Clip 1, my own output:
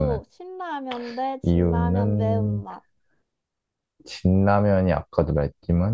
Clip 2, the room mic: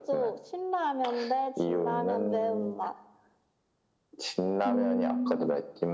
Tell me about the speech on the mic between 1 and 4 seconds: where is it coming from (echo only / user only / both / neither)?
echo only